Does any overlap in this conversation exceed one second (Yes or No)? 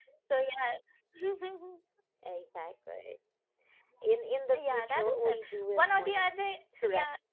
Yes